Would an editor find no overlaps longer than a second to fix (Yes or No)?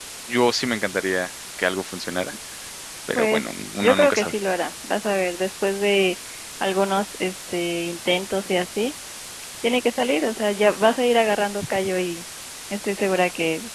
No